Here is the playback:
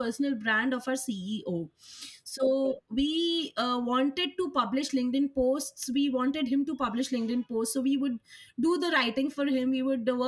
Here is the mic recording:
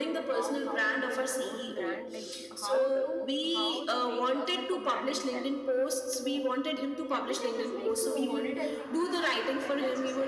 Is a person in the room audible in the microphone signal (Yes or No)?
Yes